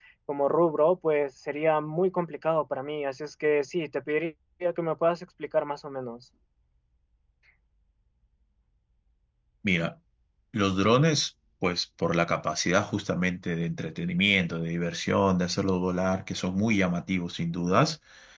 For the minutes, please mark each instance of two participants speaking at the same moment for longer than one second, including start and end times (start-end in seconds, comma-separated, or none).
none